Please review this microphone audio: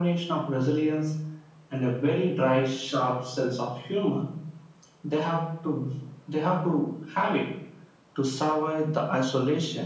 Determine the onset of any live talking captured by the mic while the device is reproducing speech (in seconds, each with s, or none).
none